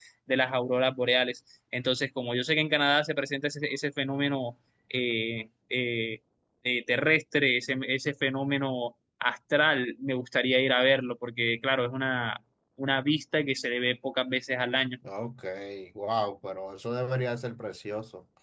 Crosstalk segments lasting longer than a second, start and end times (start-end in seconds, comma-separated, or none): none